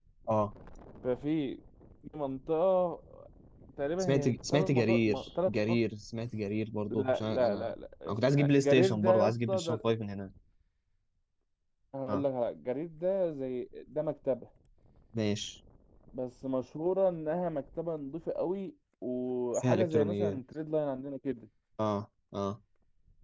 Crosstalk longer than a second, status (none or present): present